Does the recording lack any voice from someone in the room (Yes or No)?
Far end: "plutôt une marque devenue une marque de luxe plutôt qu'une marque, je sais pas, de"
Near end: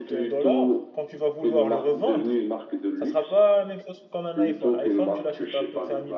No